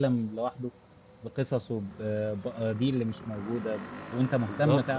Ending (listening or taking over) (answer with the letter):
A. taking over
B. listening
B